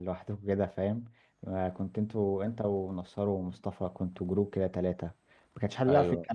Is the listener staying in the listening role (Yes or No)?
Yes